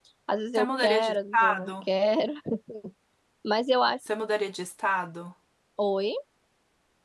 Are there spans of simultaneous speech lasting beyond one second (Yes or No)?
Yes